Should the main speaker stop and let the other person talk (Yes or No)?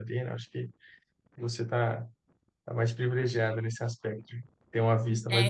Yes